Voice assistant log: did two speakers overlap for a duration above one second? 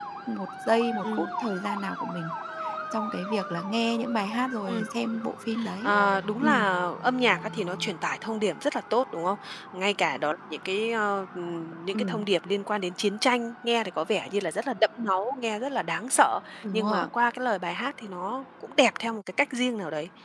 No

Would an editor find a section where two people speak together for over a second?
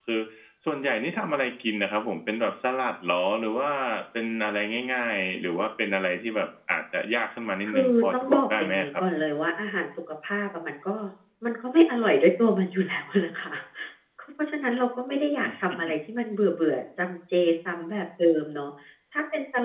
Yes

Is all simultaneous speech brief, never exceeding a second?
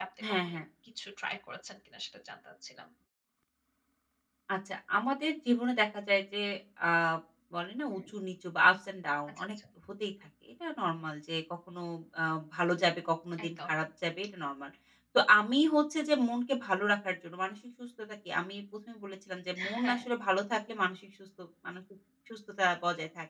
Yes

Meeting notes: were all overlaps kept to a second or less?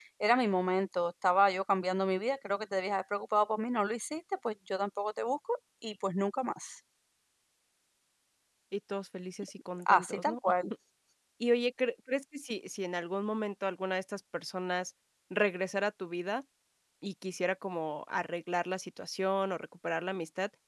Yes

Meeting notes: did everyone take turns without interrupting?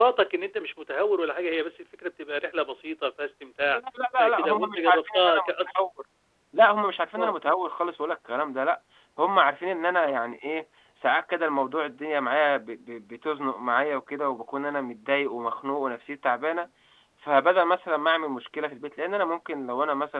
No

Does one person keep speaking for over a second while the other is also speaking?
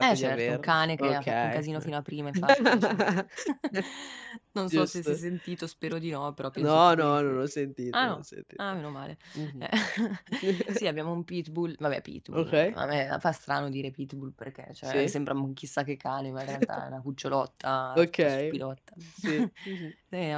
Yes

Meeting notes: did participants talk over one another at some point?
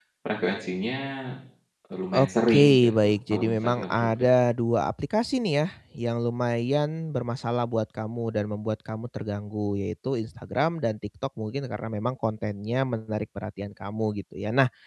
Yes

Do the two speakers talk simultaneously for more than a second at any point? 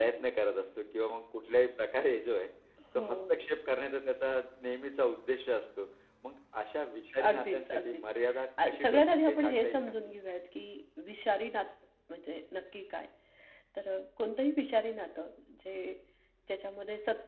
Yes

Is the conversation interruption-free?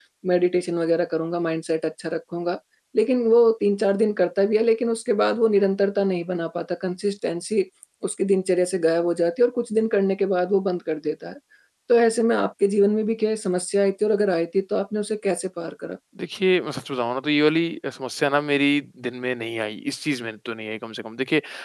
Yes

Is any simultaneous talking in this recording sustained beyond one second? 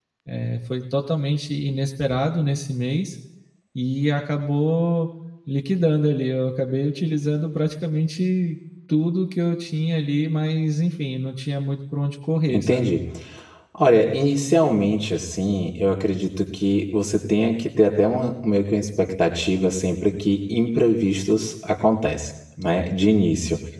No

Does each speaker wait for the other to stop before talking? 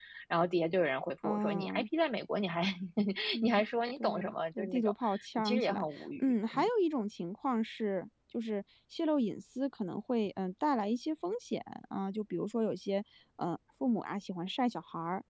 No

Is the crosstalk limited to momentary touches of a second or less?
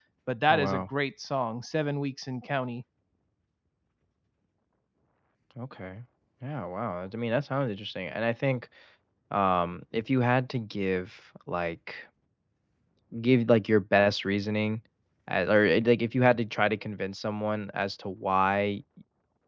Yes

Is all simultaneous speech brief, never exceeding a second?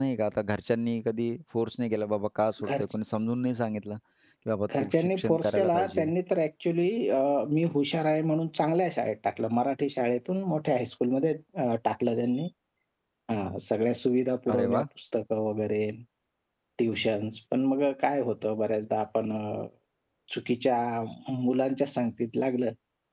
No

